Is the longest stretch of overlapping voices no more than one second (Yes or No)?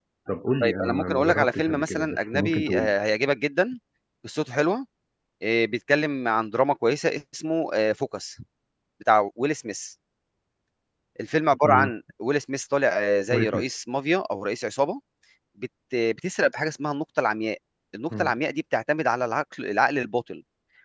No